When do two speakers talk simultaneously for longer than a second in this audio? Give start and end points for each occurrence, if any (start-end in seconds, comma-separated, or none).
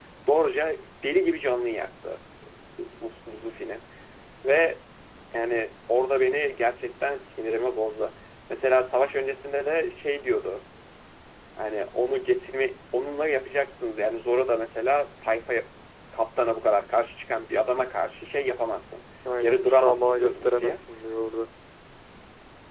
19.4-20.8